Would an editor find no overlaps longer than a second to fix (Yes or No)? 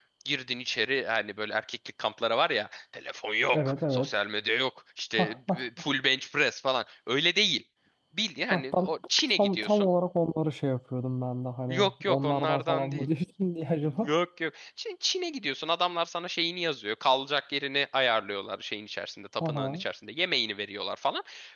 No